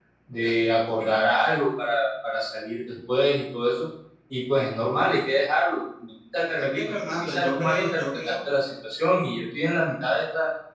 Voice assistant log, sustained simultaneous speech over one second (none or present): present